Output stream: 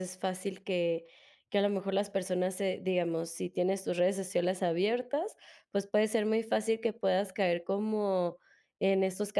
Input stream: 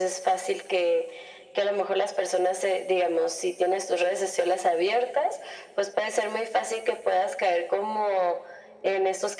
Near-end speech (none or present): none